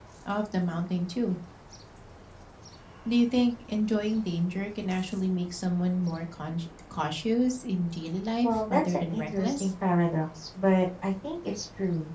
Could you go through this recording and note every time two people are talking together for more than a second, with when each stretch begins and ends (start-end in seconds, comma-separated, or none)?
8.4-9.7